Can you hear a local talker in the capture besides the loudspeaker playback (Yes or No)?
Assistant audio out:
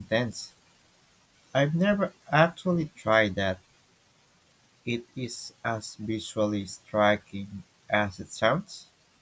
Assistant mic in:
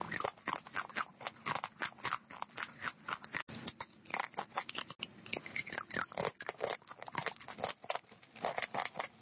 No